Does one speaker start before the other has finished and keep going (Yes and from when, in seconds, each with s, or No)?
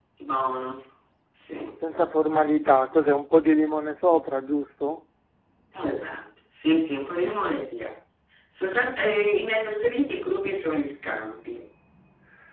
No